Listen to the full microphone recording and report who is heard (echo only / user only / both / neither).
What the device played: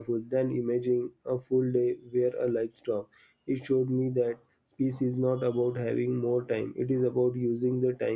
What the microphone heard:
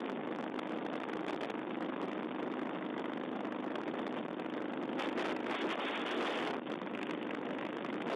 neither